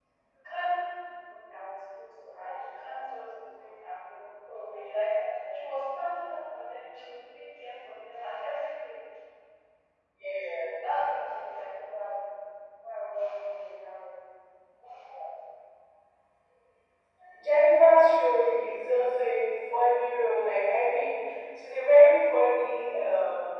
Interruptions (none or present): none